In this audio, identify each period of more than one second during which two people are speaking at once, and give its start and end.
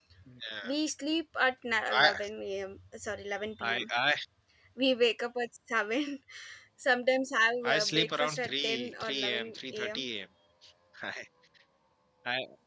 7.7-10.0

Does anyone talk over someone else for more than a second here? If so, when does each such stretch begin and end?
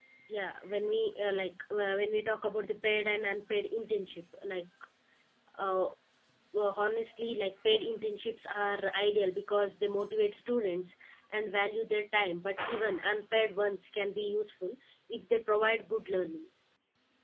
none

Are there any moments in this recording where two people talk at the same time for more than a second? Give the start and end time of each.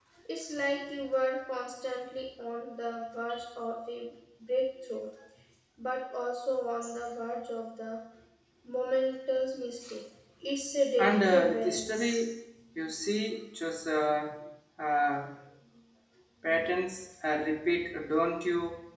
11.0-12.2

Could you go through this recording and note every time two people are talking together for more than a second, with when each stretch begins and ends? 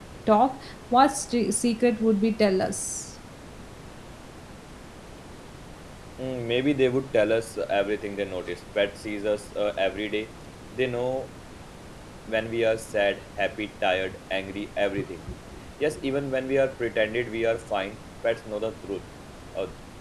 none

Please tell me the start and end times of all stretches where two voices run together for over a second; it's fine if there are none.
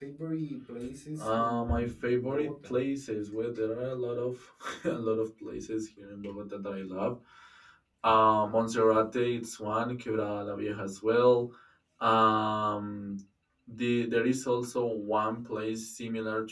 1.2-2.8

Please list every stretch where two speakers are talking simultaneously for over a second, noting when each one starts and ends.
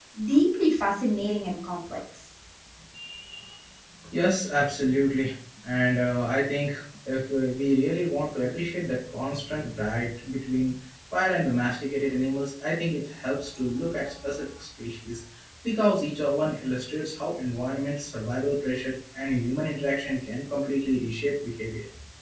none

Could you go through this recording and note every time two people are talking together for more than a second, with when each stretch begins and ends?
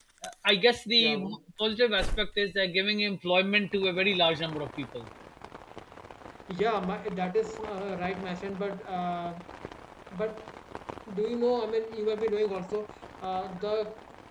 none

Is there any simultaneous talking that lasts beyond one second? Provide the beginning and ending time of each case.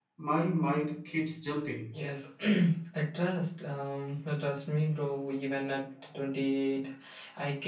none

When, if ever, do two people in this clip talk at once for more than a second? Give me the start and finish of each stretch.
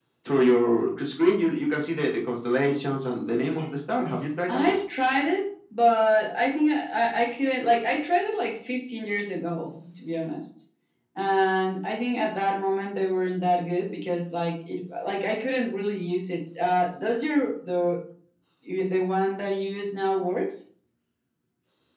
none

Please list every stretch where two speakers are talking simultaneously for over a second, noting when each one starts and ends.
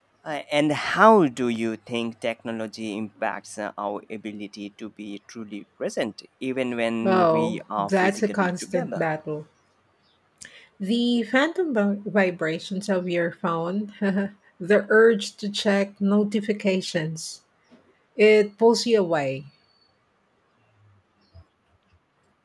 7.0-9.0

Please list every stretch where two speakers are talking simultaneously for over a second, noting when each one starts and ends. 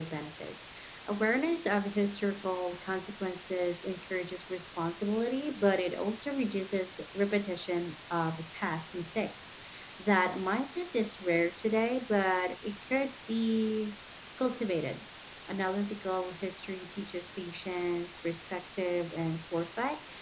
none

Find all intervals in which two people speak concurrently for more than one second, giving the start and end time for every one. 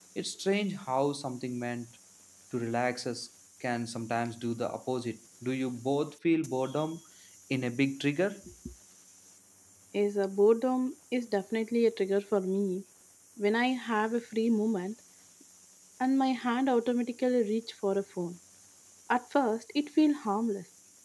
none

